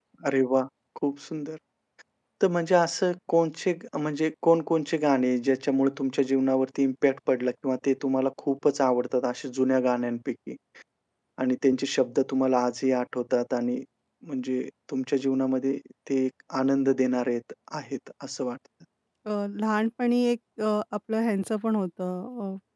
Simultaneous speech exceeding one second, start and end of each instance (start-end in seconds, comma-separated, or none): none